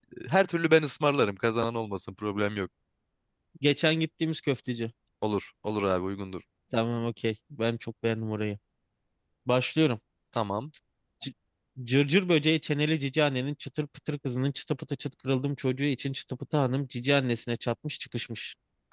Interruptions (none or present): none